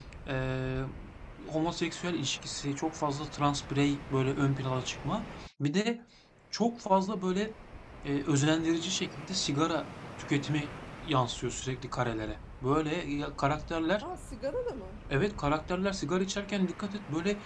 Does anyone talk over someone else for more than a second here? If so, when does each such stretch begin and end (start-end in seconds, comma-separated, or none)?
none